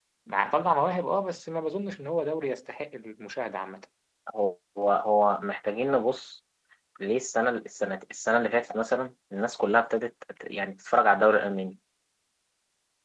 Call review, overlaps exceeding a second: none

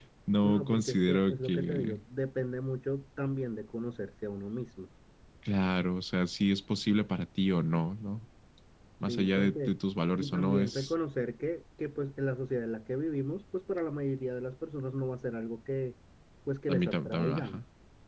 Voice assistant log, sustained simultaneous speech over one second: present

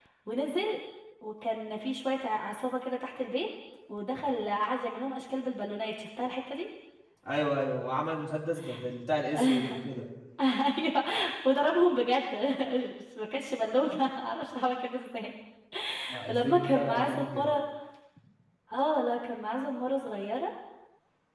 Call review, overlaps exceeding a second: present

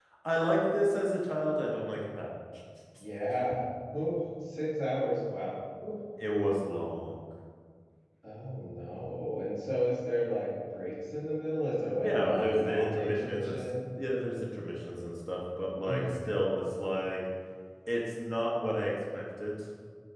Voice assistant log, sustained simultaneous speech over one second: present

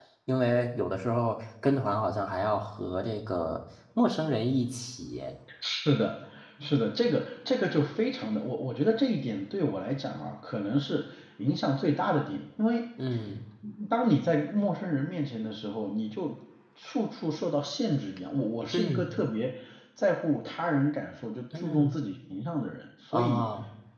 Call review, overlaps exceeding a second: none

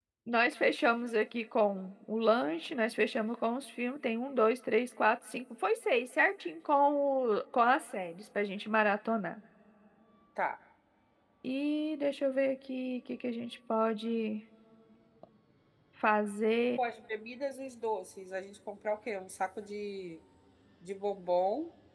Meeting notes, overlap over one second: none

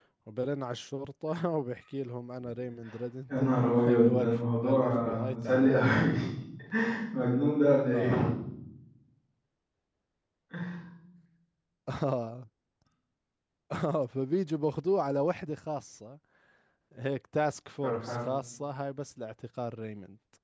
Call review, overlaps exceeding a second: present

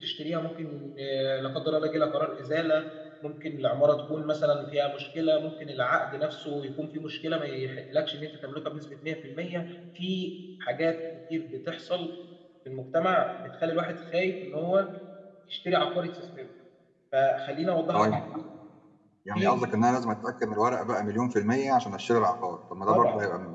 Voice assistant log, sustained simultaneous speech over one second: none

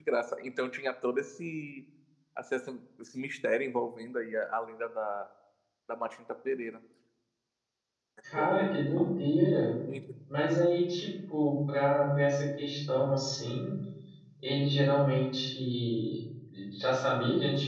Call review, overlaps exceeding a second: none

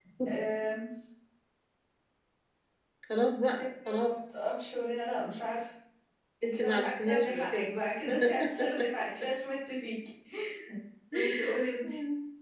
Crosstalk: present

